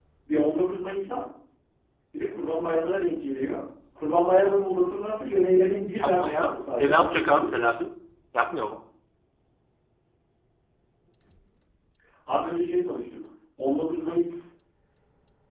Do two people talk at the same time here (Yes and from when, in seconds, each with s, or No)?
Yes, from 5.9 s